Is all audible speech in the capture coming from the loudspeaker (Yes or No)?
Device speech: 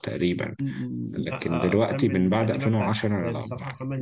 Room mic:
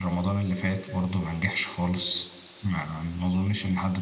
No